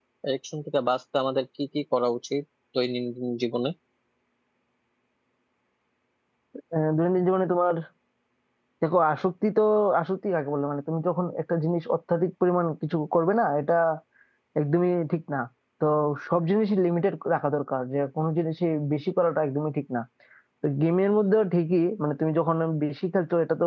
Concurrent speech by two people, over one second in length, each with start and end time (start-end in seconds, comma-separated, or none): none